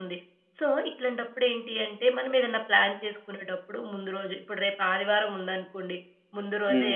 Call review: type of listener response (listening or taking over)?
listening